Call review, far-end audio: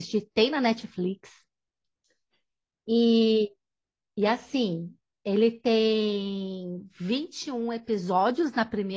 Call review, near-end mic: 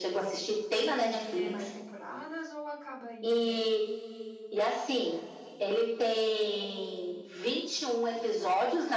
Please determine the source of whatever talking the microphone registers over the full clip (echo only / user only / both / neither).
both